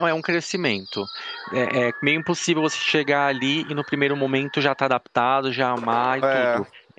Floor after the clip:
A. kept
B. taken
A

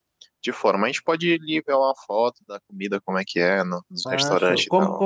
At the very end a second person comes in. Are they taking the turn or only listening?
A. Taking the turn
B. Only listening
A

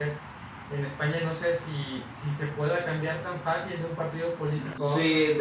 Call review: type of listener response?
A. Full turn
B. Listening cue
A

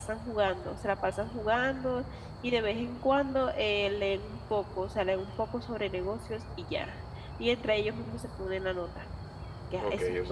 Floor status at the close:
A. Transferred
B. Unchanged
A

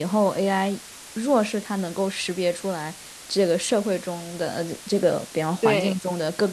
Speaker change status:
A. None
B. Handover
A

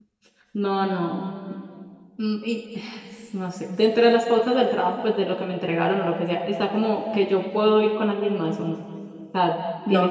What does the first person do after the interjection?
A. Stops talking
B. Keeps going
A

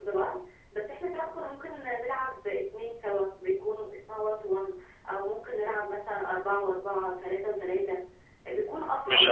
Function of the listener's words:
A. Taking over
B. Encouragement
A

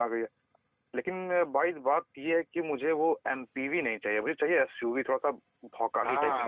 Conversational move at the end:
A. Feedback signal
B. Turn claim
B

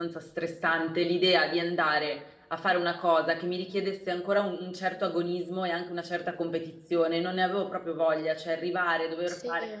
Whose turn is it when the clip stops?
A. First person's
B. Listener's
A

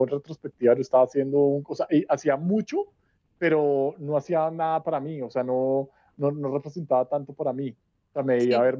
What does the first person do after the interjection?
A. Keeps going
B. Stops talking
A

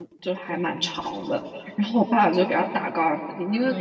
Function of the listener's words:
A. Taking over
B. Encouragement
B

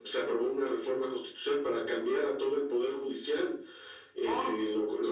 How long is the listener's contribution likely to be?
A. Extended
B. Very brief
B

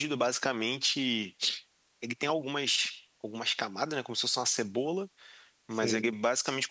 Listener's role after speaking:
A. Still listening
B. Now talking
A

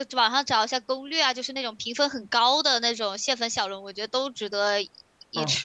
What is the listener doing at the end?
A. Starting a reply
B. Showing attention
A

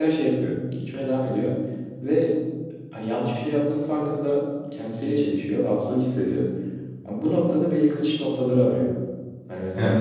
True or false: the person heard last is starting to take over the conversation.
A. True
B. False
B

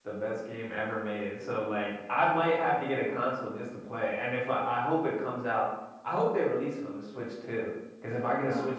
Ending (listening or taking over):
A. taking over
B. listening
A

